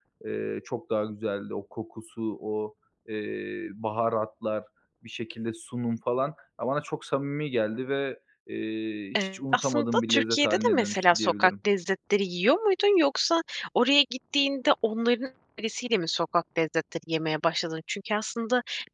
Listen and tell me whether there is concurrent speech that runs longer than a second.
Yes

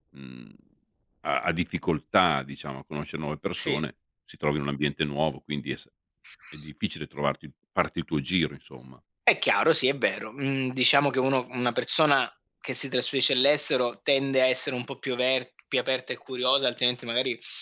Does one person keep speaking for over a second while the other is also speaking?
No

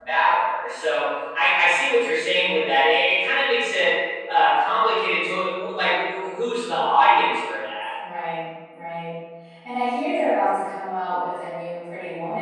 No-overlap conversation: Yes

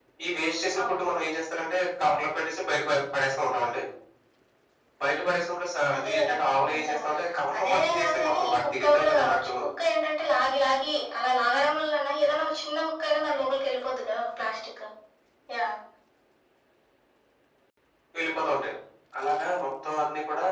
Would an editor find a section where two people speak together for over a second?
Yes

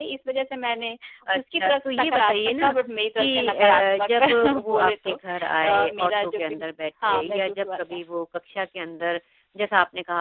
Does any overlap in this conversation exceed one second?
Yes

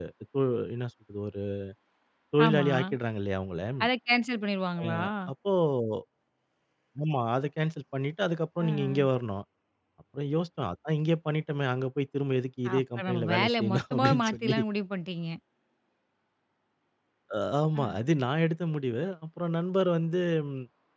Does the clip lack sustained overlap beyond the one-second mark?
No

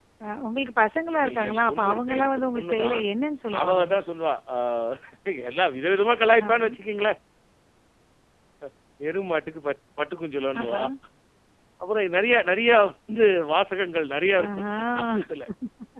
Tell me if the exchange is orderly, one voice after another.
No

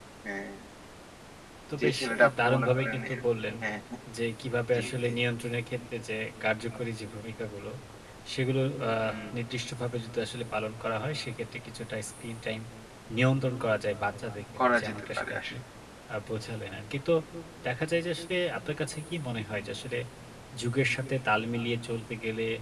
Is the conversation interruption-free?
No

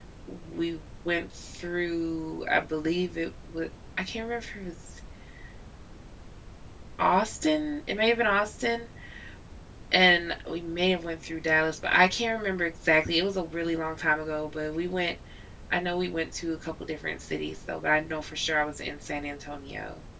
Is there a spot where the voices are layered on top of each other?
No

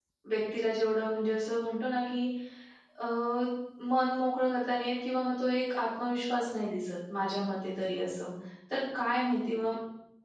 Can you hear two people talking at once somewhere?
No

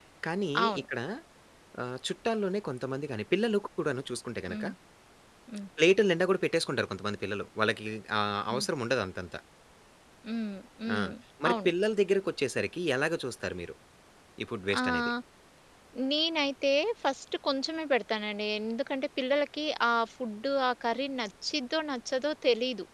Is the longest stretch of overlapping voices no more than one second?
Yes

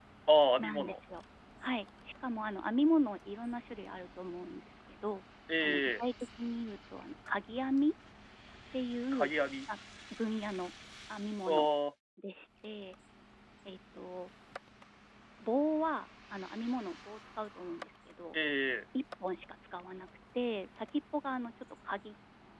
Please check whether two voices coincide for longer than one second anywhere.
No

